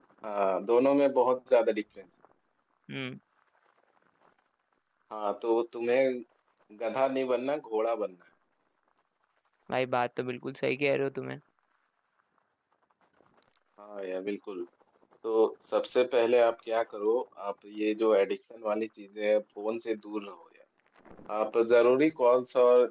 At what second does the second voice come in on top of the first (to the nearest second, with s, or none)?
none